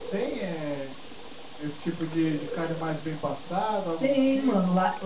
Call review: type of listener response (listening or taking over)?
taking over